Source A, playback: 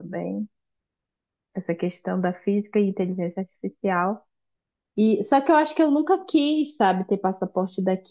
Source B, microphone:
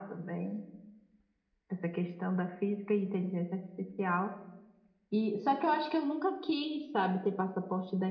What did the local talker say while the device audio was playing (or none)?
none